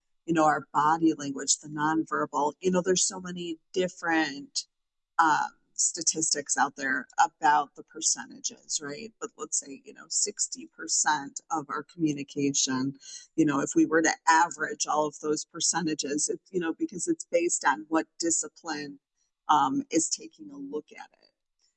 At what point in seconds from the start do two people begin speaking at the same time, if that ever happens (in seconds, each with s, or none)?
none